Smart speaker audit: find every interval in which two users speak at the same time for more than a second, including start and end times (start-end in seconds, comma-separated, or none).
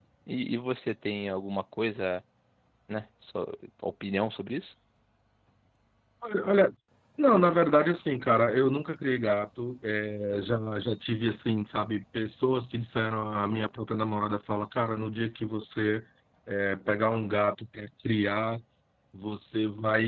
none